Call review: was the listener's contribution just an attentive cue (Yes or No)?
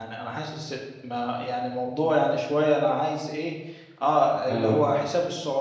Yes